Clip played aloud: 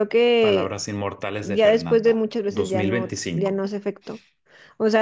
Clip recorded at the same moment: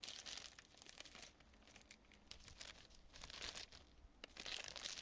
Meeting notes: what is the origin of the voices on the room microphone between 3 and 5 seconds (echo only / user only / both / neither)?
neither